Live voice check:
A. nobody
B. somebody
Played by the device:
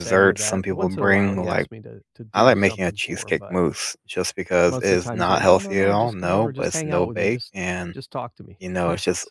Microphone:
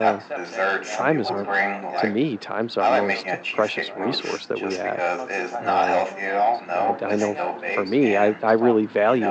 B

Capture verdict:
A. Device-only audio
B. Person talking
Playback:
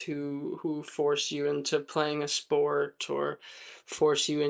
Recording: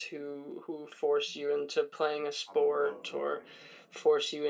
B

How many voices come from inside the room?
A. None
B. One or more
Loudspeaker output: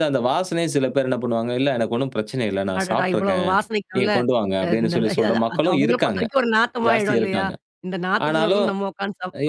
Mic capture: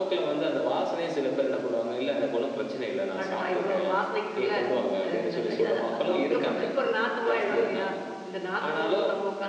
A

